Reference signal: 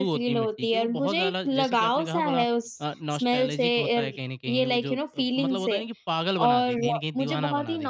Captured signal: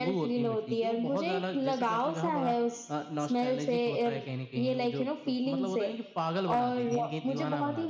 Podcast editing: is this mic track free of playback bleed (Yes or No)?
No